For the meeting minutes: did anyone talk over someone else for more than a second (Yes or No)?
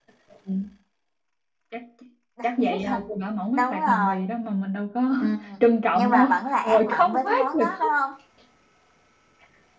Yes